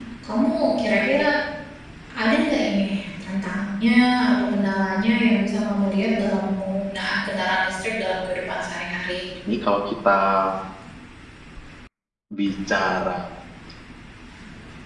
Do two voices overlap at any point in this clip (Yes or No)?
No